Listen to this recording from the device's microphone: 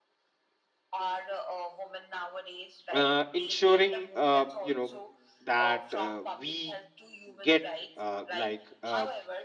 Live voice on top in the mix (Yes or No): Yes